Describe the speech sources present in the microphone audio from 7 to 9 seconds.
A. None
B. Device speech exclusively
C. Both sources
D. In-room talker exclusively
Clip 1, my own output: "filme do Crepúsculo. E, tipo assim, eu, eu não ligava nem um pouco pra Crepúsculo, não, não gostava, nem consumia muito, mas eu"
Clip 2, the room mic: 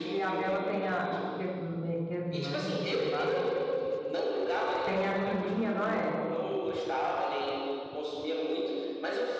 B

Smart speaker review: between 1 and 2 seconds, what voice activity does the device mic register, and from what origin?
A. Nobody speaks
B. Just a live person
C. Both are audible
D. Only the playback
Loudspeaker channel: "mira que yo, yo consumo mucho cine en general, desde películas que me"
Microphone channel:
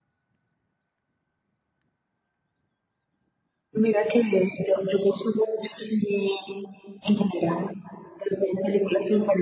A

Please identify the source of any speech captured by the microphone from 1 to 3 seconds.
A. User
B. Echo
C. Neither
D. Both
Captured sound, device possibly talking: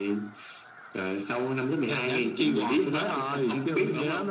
B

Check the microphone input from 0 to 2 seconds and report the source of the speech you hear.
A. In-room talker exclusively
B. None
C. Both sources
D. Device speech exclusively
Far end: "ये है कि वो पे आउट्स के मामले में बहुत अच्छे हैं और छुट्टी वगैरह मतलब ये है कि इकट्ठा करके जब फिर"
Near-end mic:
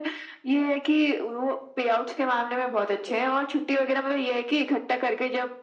D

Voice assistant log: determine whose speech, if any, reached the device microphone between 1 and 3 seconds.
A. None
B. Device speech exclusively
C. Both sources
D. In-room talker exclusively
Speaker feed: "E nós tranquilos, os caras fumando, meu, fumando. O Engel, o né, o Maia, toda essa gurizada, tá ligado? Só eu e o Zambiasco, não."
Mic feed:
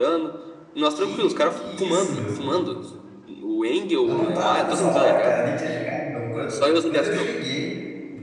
C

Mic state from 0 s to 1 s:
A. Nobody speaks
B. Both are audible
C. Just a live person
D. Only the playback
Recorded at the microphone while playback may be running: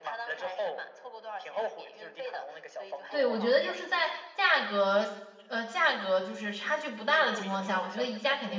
D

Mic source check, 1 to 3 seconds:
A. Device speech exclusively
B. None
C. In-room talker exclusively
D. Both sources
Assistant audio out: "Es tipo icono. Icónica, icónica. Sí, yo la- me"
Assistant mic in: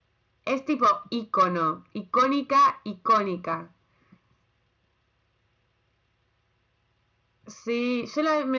A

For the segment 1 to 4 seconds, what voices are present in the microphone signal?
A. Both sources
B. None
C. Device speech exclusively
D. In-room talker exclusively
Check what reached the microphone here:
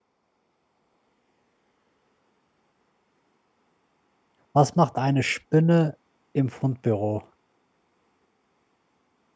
B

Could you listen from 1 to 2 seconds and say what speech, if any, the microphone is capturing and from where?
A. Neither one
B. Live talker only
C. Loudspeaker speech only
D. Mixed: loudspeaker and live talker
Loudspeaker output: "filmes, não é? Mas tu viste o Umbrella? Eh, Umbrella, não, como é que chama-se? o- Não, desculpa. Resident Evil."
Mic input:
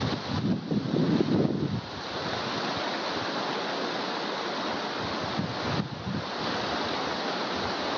A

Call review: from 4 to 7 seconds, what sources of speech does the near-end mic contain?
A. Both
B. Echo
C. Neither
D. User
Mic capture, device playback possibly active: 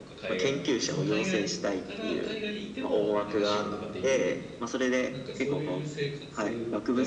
A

